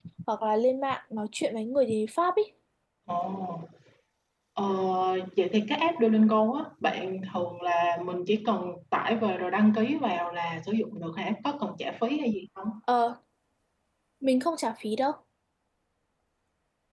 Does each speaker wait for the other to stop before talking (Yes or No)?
Yes